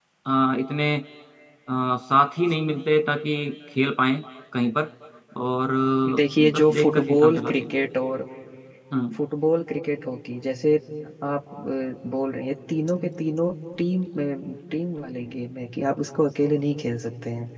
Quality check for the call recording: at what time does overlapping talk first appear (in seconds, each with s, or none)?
6.1 s